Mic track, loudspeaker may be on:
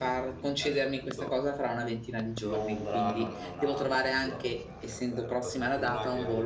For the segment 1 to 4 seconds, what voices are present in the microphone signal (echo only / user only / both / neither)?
both